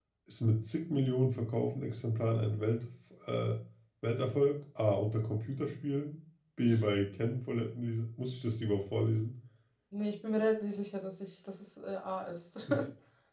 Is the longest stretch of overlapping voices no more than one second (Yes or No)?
Yes